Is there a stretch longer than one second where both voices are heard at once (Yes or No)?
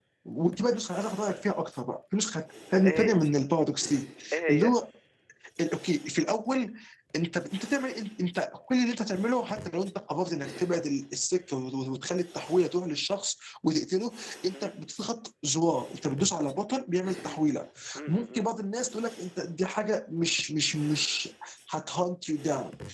No